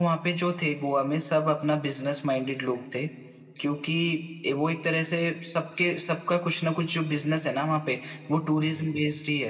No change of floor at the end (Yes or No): Yes